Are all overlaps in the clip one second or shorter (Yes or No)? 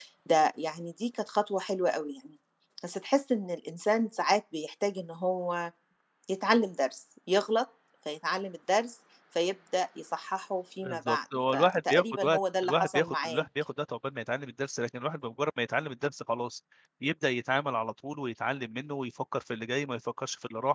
No